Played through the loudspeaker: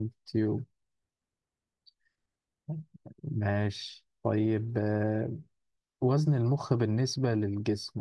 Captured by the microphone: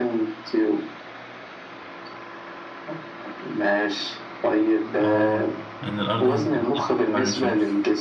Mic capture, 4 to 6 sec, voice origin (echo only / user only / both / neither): both